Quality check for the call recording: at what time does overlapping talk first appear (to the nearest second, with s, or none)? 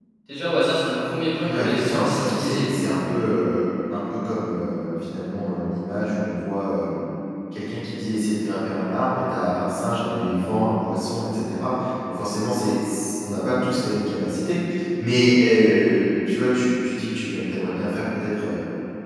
1 s